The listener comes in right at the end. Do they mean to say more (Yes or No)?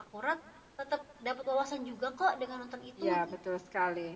Yes